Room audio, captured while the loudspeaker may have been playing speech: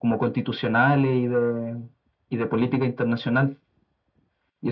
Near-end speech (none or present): none